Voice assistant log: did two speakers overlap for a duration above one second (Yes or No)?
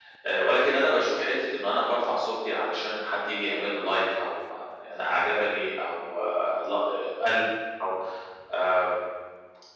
No